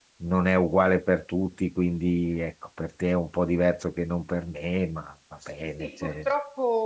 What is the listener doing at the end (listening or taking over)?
taking over